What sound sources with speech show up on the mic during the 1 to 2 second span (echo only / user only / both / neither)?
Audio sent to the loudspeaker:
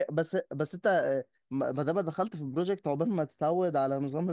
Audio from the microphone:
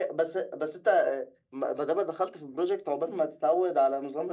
echo only